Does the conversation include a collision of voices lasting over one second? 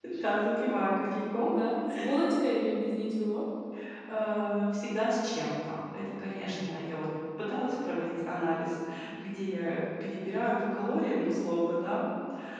No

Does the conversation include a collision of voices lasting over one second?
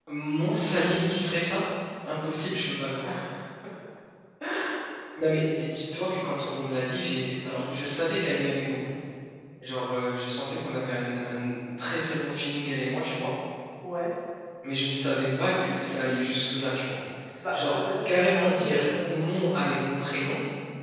Yes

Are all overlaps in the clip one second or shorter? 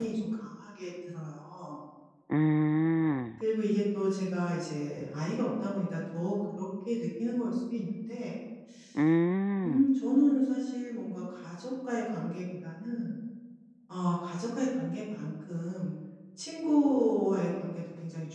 Yes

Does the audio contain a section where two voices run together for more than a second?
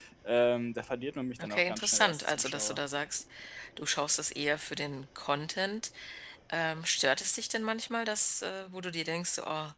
Yes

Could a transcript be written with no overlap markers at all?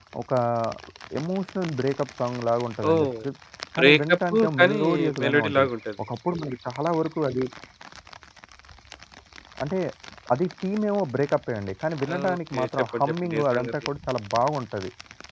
No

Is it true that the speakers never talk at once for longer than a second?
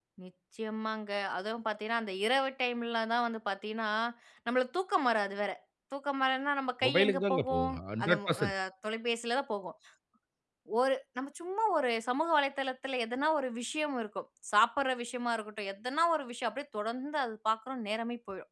No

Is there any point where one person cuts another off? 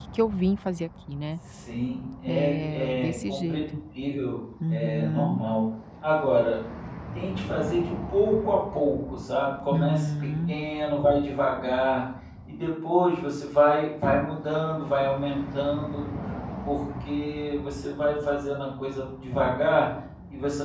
Yes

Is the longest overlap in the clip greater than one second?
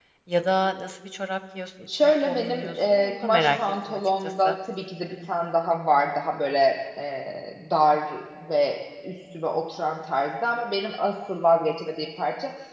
Yes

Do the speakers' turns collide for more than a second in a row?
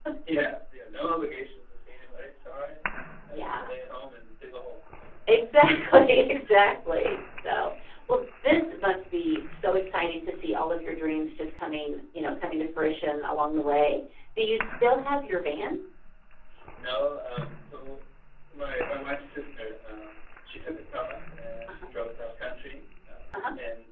No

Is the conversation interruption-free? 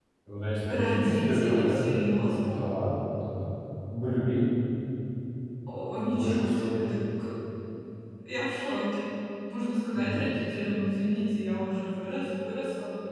No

